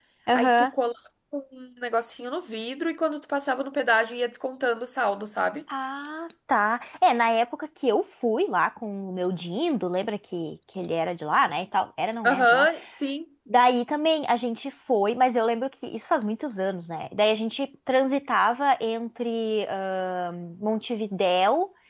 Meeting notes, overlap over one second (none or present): none